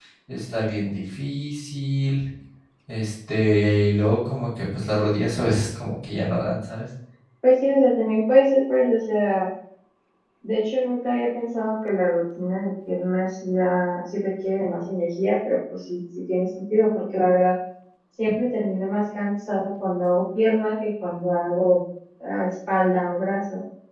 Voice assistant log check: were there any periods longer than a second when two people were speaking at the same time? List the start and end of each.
none

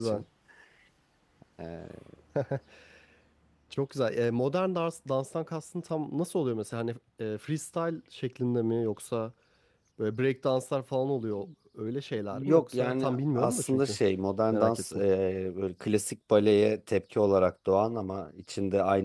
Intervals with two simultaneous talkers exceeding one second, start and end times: 12.3-14.0

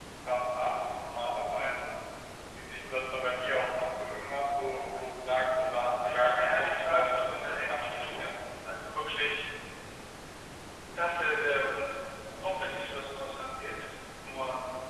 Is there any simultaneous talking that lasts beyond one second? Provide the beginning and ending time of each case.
5.9-8.3

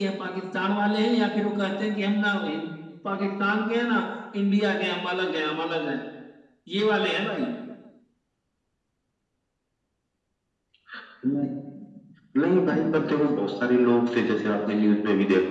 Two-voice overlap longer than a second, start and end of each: none

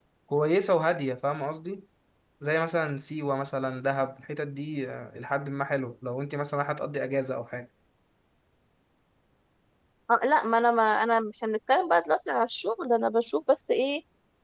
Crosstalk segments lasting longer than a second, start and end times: none

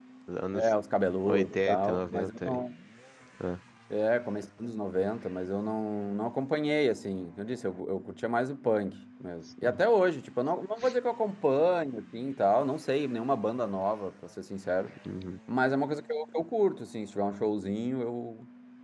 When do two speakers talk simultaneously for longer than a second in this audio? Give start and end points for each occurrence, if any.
1.3-2.6

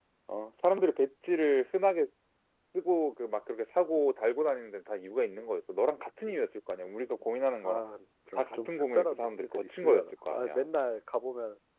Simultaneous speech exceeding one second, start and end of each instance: 8.4-10.6

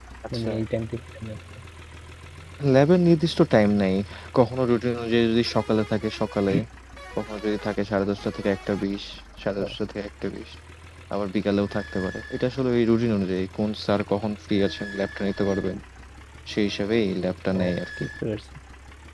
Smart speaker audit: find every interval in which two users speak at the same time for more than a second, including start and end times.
none

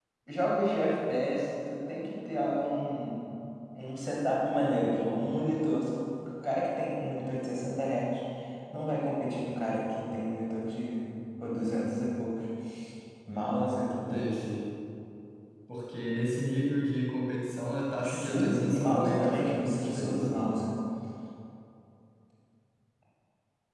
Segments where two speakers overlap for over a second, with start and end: 18.0-20.5

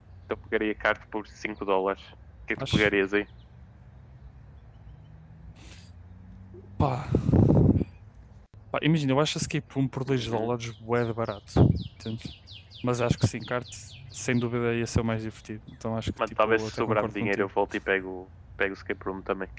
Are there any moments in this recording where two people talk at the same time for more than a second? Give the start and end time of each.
16.3-17.5

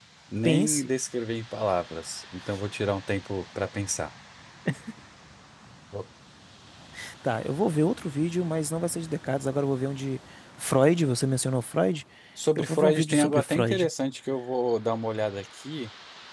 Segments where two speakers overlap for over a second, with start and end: 12.6-13.9

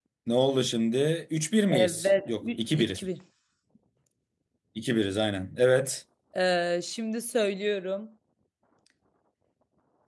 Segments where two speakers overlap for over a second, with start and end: 1.6-3.0

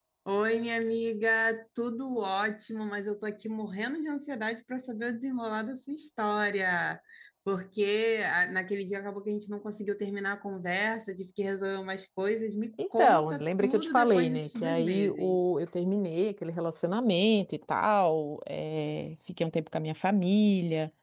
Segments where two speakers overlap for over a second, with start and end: 13.0-15.4

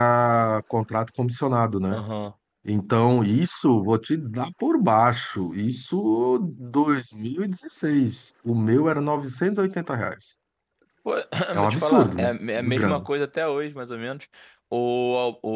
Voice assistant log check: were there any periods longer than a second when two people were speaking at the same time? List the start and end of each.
11.6-13.0

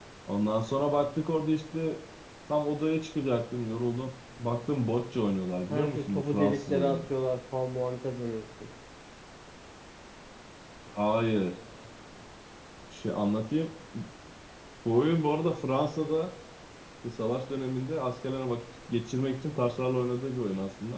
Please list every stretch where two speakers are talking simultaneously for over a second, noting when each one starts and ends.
5.7-7.1

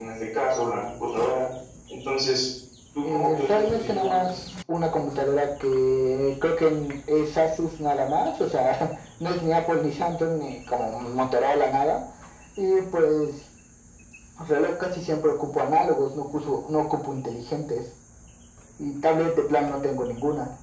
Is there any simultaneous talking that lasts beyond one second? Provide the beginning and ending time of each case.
3.0-4.3

